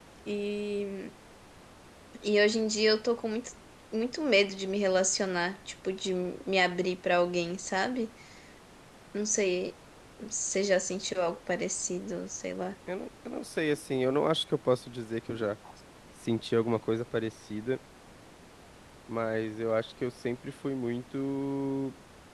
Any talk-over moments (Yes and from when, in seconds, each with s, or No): No